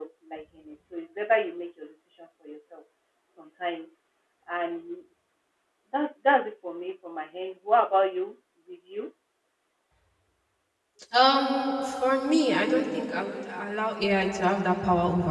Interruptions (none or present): none